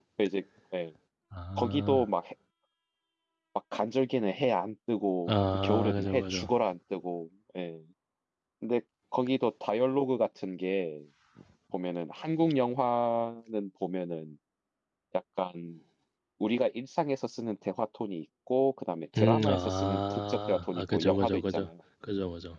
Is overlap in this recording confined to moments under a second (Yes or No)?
No